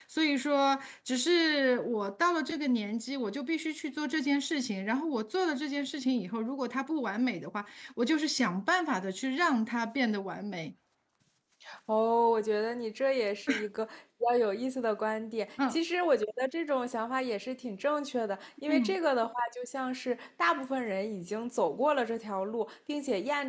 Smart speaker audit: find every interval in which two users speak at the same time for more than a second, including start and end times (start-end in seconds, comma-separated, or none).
none